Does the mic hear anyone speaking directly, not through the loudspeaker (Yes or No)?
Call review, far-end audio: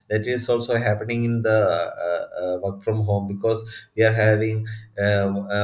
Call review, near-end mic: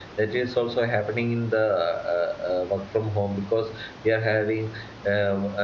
No